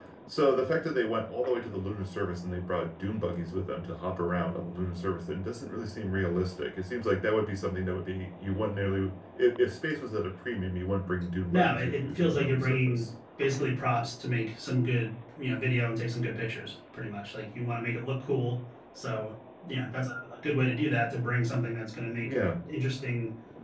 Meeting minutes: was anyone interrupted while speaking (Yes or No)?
Yes